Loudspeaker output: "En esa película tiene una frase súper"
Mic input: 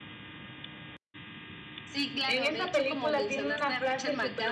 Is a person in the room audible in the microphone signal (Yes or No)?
Yes